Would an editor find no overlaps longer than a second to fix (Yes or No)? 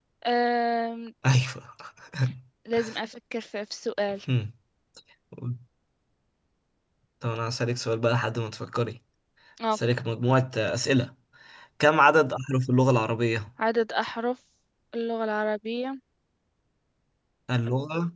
Yes